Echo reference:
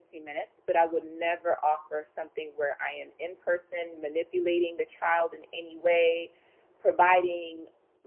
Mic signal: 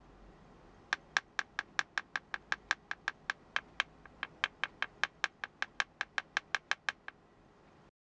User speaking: No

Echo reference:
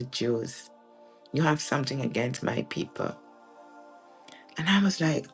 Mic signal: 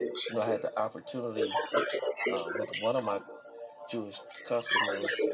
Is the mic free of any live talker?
No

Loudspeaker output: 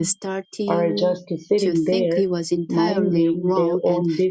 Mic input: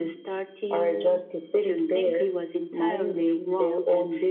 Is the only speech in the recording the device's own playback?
Yes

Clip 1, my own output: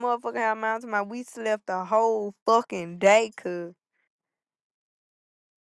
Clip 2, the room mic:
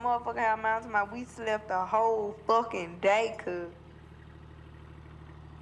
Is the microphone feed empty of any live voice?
Yes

